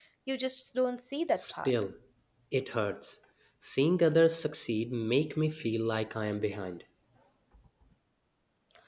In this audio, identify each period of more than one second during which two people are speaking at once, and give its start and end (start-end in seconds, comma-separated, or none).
none